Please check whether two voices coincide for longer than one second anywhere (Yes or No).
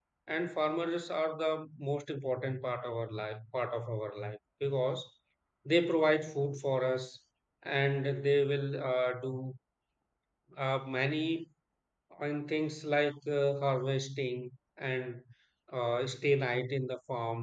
No